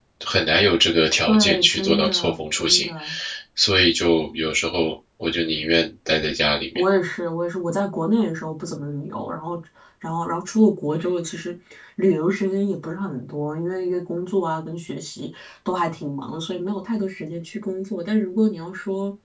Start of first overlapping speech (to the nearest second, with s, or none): 1 s